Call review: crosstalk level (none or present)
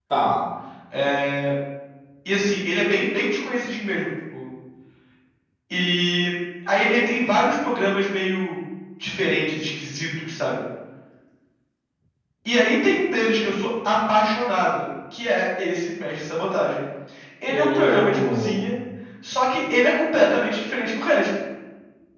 present